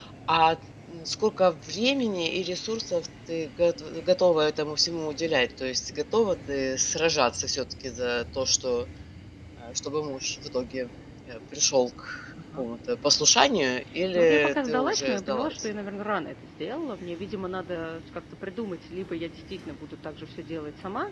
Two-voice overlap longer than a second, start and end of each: 14.2-15.7

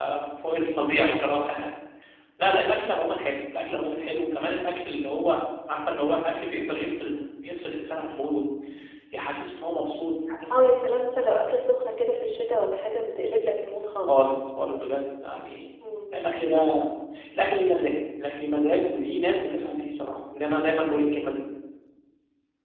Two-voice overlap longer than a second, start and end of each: none

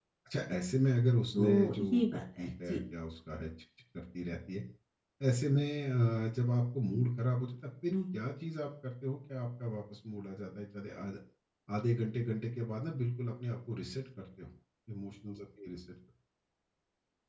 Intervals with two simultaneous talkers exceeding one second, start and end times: 1.3-2.8

